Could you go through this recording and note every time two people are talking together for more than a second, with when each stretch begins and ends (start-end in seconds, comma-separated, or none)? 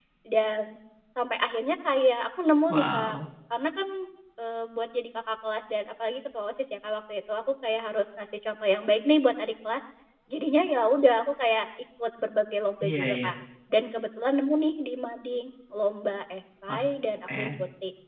none